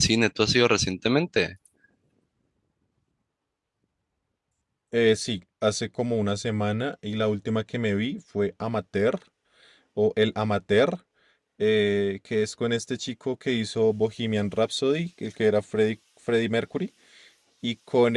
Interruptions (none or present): none